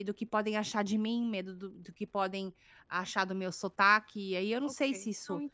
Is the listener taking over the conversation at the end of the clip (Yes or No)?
Yes